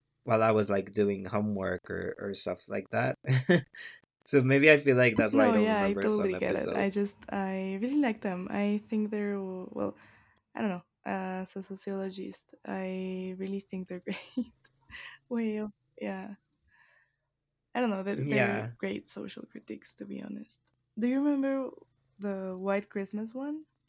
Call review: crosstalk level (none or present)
present